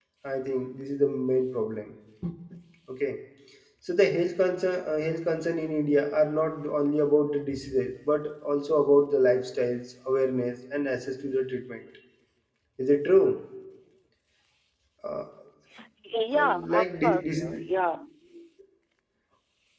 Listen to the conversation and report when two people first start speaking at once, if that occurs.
16.4 s

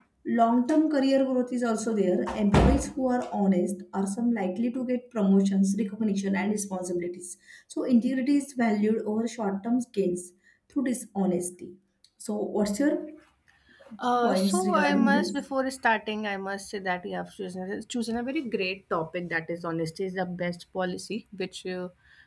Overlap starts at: 14.2 s

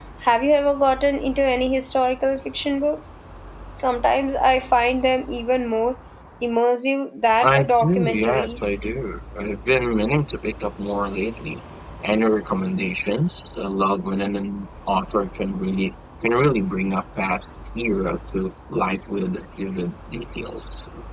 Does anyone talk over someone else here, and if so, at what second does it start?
7.4 s

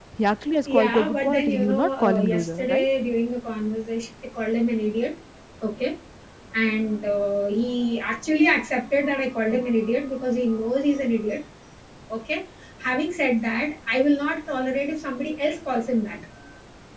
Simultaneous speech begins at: 0.8 s

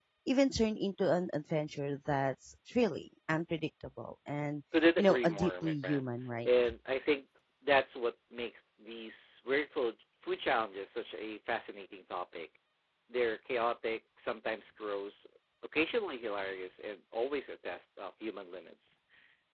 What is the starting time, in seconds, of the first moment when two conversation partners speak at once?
4.7 s

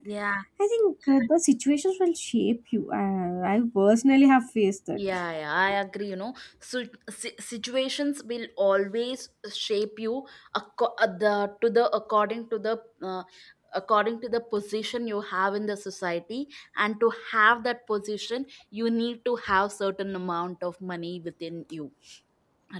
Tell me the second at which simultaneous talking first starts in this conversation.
none

